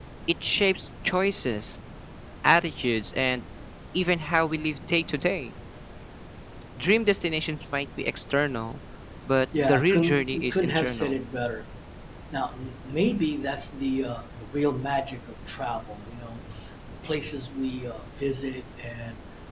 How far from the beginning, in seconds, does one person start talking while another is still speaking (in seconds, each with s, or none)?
9.6 s